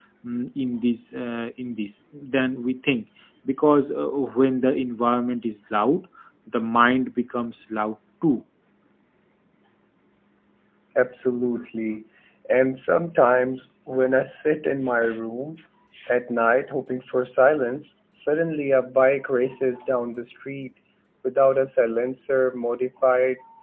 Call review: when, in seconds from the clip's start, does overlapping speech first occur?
none

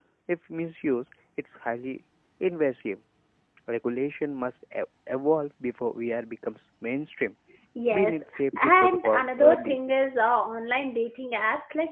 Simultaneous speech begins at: 7.9 s

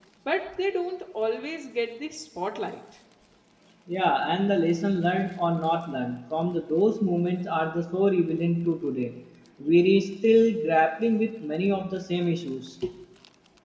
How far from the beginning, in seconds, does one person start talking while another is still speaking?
none

